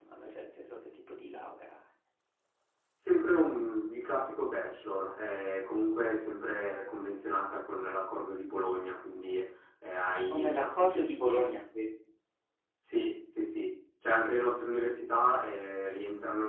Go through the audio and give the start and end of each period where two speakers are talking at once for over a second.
10.2-11.5

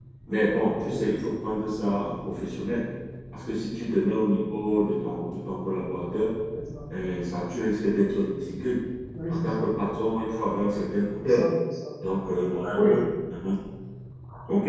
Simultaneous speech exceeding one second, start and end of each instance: none

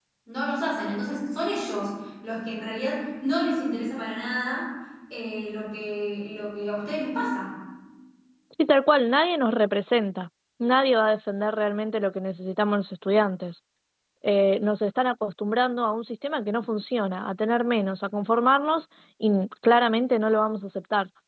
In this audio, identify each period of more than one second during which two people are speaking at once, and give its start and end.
none

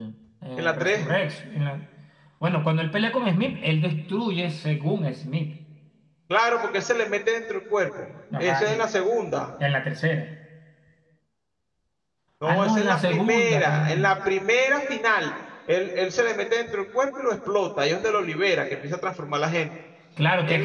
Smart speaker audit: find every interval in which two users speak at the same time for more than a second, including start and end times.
12.5-14.1

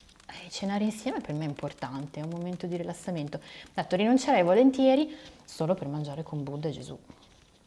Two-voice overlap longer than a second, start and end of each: none

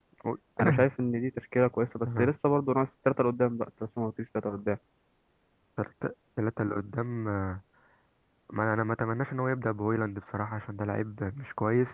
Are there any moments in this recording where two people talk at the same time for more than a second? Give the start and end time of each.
none

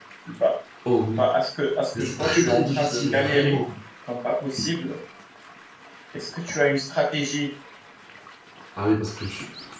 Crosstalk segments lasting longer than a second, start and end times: 2.0-3.6

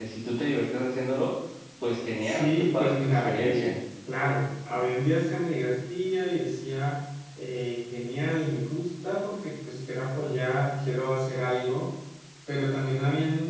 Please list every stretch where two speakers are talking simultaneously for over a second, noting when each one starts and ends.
2.2-3.7

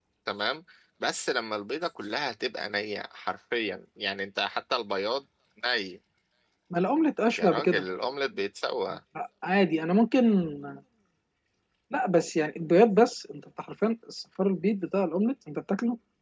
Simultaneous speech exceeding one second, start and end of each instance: none

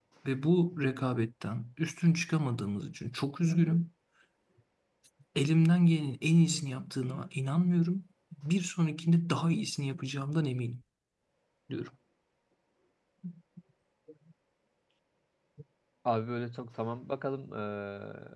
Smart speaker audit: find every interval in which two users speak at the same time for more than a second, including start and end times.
none

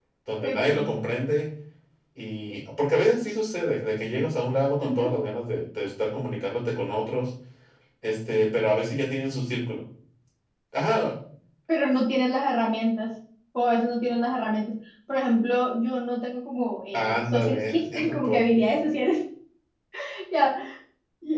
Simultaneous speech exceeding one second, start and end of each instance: 16.9-18.5

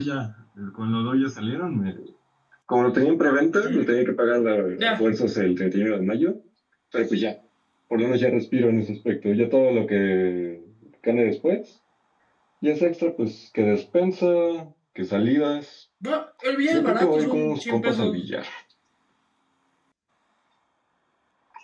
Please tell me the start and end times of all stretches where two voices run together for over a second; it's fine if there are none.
16.7-18.2

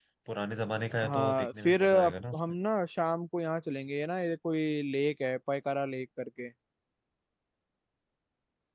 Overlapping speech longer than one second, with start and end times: 1.0-2.4

